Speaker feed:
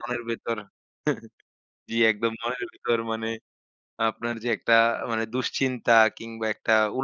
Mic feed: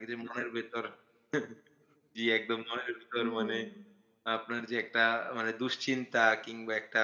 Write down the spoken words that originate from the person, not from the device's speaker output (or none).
হুম।